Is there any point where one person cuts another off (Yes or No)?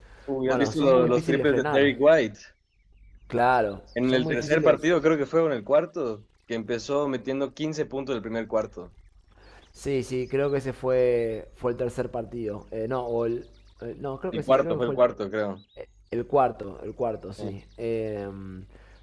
Yes